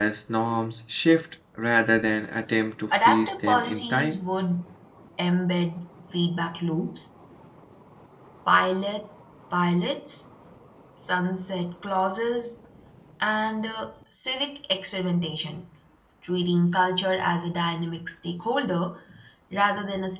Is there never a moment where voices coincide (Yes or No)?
No